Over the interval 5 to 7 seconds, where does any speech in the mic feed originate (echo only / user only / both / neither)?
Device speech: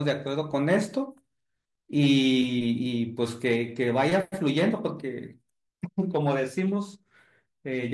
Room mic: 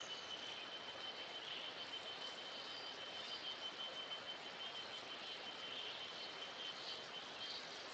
neither